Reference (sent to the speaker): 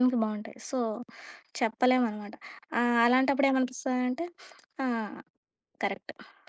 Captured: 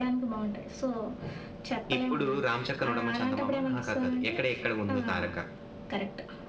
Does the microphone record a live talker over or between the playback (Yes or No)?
Yes